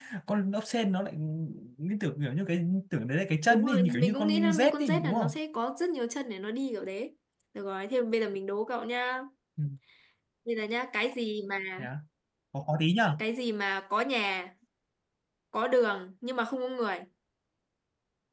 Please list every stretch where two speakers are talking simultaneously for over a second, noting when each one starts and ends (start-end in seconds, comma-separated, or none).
3.5-5.3